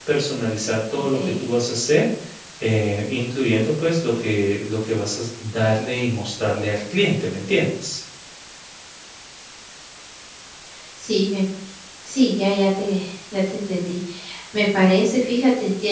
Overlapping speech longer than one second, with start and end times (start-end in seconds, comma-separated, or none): none